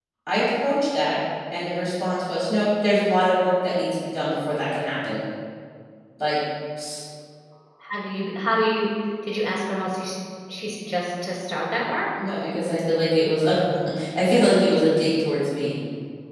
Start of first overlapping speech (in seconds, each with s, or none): none